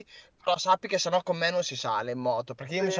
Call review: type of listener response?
listening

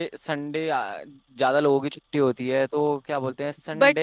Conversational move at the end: taking over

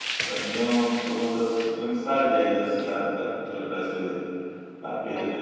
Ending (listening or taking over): taking over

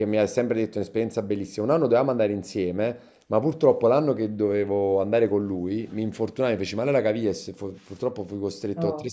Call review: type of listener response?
listening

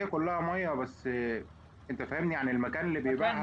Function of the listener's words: taking over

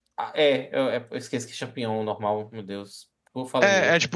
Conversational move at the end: taking over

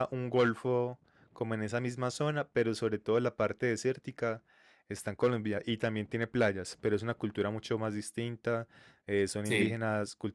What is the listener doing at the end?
listening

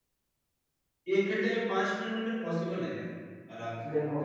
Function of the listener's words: taking over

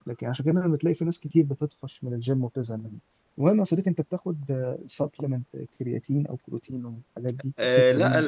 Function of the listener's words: taking over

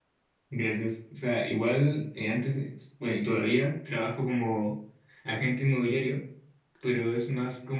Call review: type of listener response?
listening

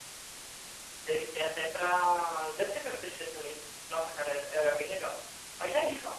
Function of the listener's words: taking over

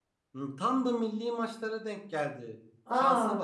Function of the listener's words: listening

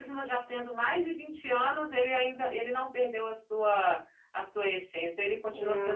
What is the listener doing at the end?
taking over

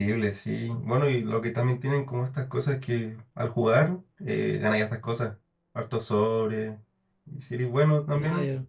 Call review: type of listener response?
listening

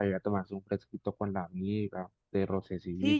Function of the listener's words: taking over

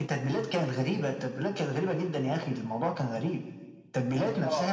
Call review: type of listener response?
listening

